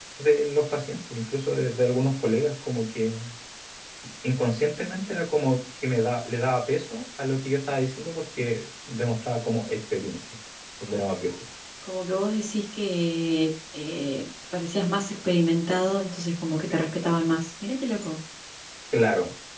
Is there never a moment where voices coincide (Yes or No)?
Yes